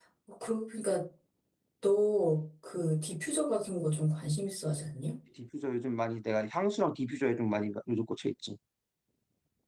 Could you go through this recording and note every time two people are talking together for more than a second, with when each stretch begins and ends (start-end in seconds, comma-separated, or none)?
none